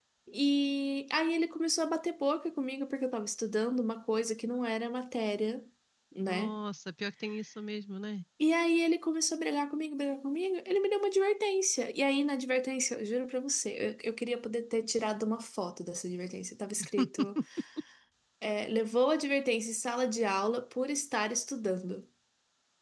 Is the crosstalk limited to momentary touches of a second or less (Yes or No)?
Yes